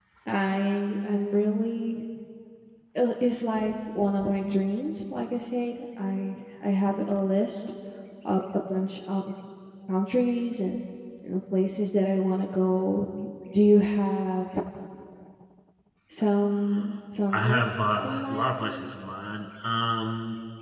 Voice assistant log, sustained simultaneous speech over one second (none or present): present